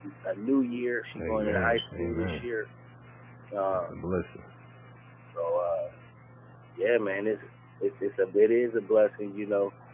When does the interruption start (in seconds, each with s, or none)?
1.2 s